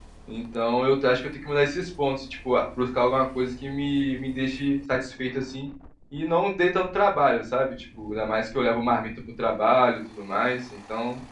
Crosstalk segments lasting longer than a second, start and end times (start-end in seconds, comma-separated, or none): none